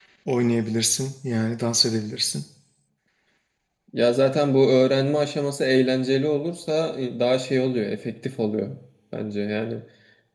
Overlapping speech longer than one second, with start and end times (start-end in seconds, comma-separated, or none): none